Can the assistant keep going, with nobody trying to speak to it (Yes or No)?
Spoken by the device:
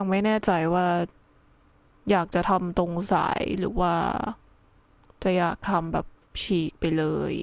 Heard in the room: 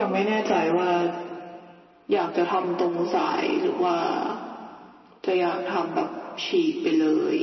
Yes